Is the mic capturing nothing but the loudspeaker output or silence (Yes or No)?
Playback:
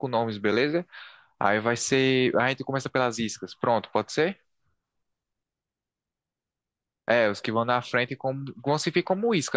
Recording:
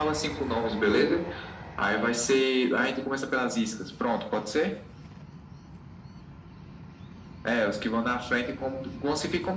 Yes